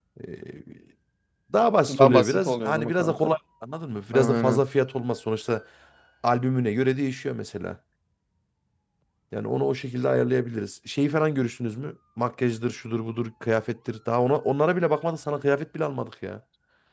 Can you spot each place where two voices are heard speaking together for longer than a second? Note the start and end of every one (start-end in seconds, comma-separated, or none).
1.9-3.3